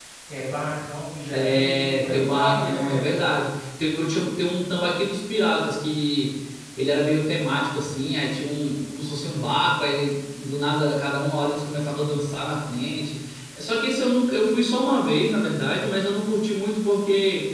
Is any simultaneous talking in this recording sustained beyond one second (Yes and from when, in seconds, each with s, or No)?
Yes, from 1.3 s